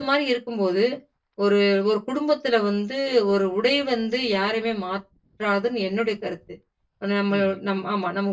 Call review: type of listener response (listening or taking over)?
listening